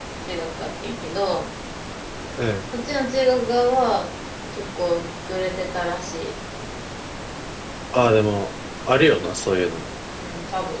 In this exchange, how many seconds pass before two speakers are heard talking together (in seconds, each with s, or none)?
none